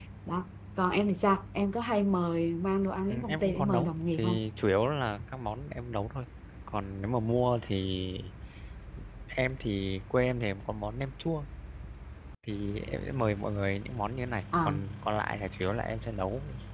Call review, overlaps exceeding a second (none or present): present